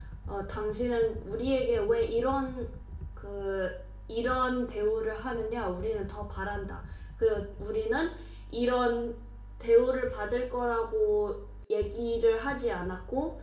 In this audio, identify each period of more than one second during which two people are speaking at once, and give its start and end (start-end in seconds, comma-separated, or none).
none